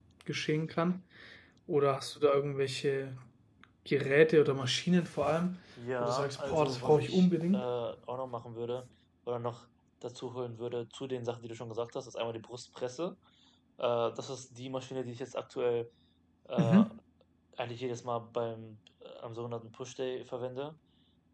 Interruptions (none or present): present